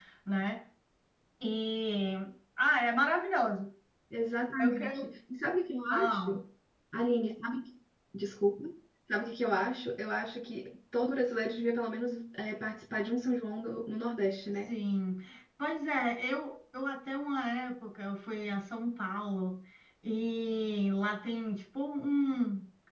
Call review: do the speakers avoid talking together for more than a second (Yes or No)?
Yes